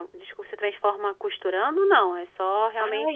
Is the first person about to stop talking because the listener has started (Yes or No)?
Yes